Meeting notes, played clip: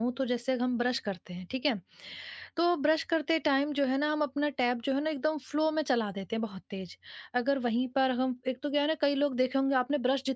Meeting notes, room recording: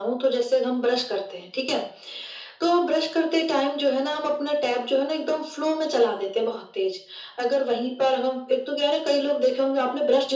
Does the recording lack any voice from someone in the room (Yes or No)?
Yes